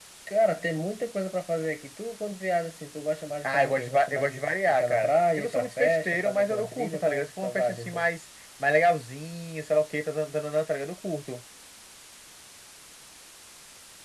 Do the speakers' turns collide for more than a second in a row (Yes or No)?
Yes